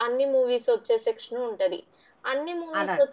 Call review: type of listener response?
listening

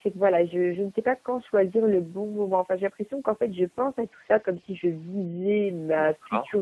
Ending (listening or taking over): listening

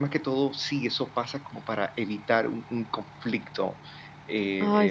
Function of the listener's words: listening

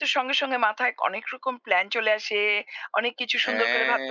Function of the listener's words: listening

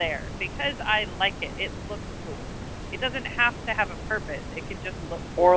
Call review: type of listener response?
taking over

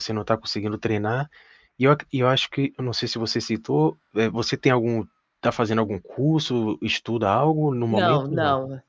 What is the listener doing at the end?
taking over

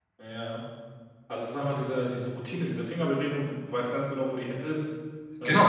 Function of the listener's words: taking over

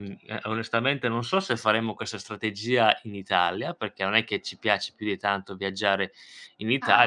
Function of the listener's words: listening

